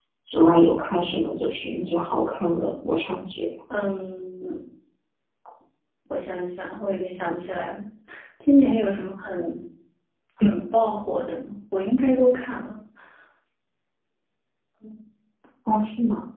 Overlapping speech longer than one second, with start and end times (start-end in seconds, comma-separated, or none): none